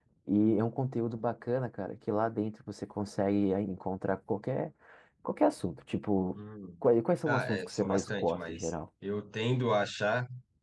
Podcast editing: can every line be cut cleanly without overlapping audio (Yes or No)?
No